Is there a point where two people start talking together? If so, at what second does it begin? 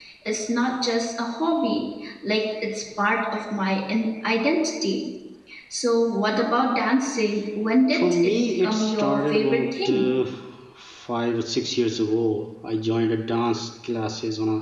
7.9 s

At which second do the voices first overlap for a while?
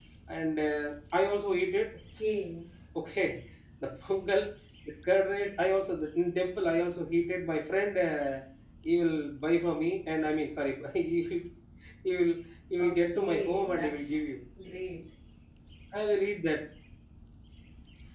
12.8 s

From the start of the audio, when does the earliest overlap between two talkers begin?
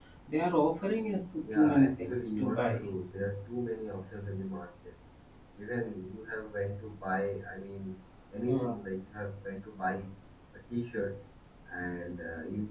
1.4 s

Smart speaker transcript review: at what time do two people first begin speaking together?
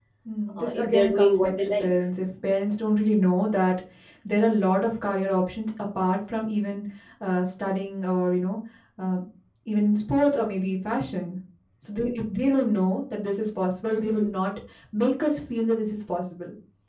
0.6 s

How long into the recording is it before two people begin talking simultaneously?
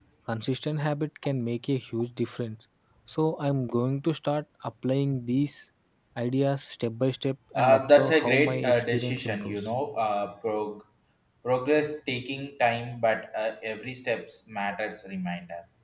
7.5 s

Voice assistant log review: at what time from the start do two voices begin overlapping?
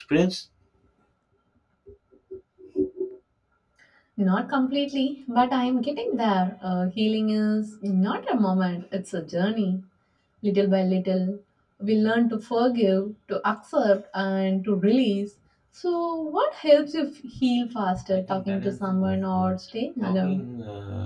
18.3 s

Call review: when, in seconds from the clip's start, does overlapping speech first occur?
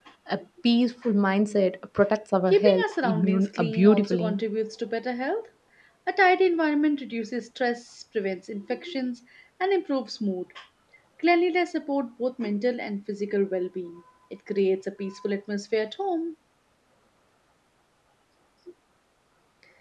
2.5 s

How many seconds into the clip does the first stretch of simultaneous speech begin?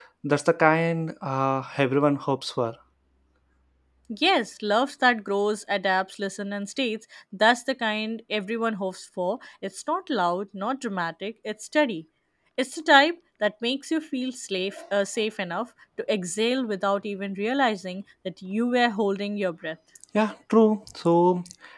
none

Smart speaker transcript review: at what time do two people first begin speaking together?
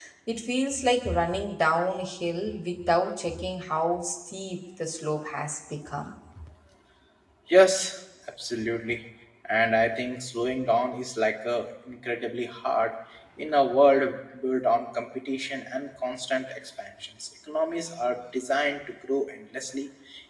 none

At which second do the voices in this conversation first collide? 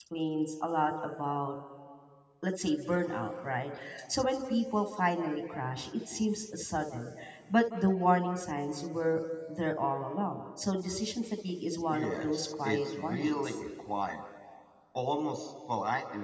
11.9 s

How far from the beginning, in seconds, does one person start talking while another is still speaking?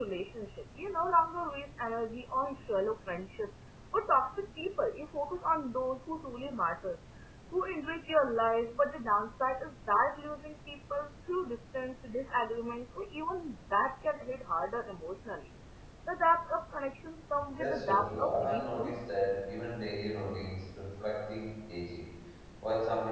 17.6 s

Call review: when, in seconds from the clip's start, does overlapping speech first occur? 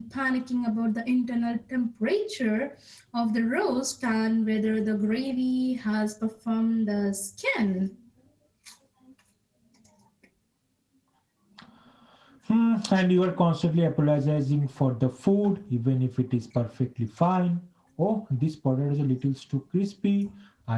none

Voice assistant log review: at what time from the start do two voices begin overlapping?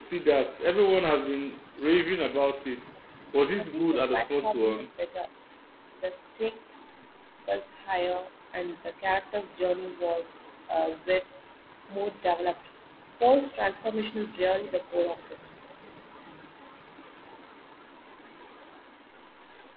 3.6 s

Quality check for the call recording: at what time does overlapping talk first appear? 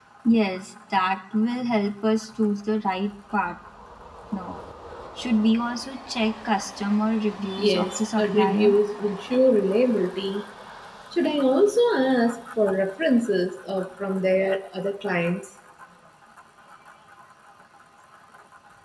7.6 s

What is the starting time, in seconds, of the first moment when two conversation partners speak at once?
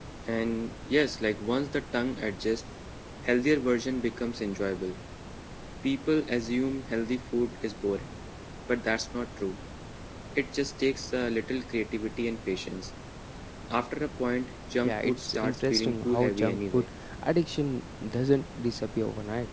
14.8 s

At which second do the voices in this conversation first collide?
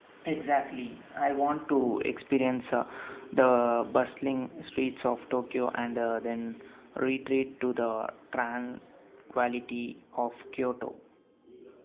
none

